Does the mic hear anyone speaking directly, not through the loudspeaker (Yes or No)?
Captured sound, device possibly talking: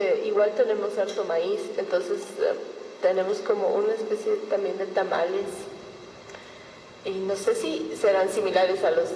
No